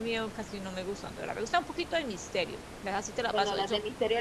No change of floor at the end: No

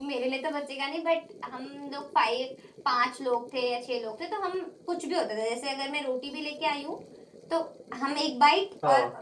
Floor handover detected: No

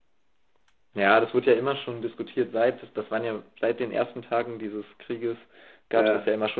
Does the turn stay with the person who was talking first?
Yes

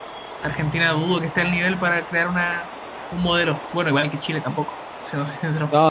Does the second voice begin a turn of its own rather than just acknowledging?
Yes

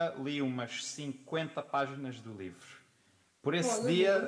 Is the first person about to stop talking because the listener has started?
No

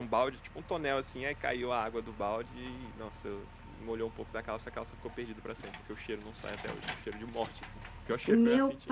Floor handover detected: Yes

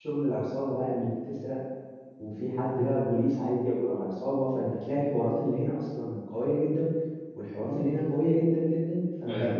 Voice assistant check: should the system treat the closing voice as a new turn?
No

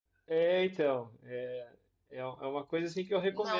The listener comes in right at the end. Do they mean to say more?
Yes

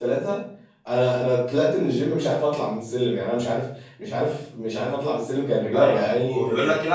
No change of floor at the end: No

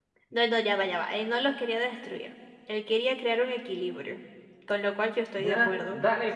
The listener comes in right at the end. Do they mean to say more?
Yes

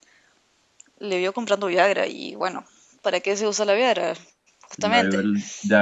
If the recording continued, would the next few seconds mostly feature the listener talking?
Yes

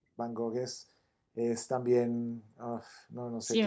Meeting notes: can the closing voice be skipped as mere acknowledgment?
No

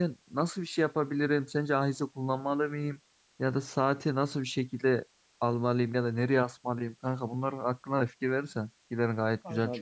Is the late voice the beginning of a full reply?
Yes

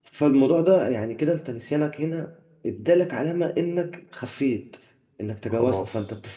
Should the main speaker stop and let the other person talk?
No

